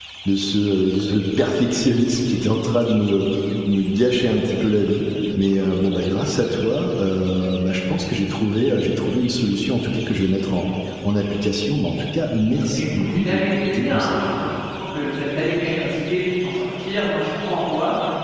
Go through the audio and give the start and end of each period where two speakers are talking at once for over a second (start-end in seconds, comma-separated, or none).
12.7-14.3